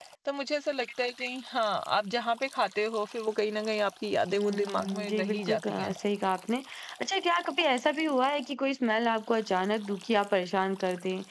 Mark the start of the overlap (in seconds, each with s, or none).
4.3 s